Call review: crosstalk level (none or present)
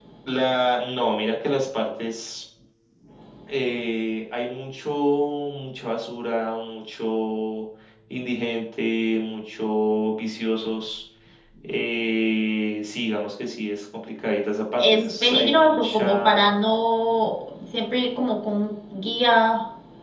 present